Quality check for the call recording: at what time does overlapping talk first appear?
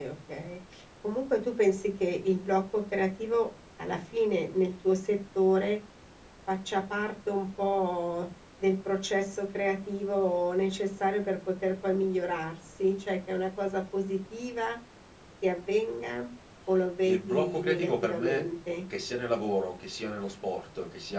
17.0 s

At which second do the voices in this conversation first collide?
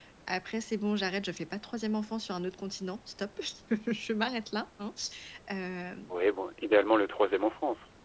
none

